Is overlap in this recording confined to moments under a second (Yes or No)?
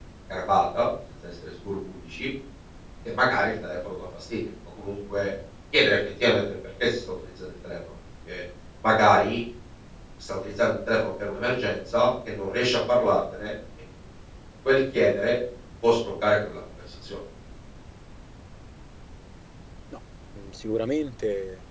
Yes